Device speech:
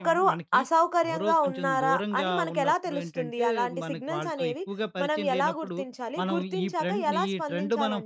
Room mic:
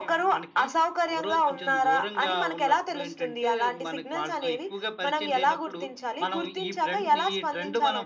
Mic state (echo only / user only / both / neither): echo only